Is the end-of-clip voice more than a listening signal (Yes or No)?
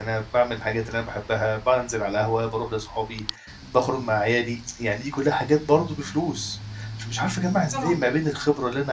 No